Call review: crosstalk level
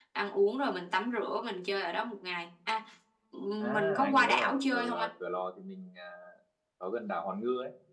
present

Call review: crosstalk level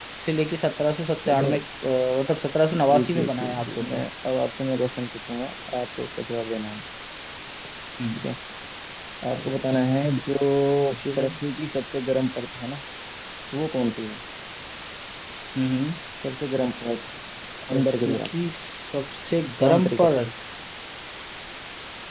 present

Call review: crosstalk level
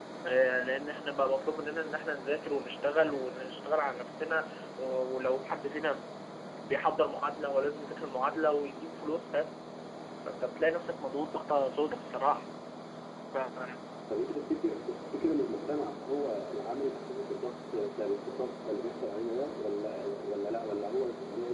none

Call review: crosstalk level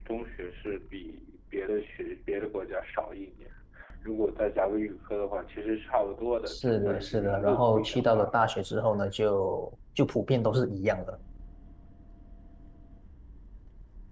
present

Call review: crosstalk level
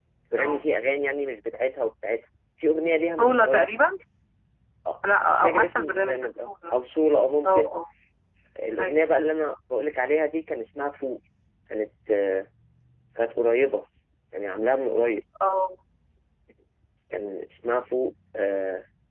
present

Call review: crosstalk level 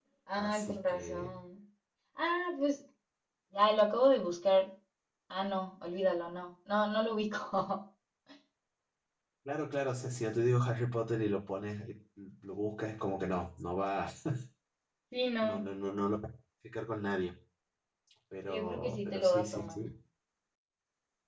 present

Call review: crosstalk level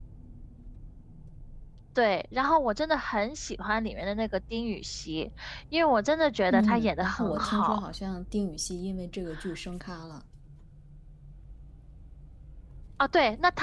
present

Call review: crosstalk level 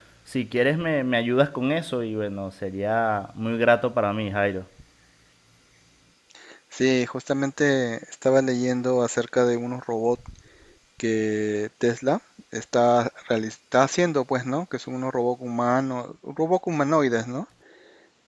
none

